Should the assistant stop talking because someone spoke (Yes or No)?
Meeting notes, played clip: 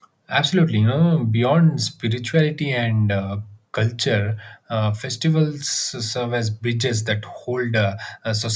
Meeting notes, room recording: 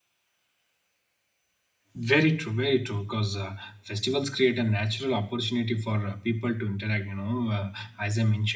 Yes